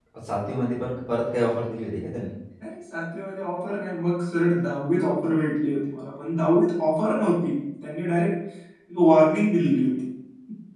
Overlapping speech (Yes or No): No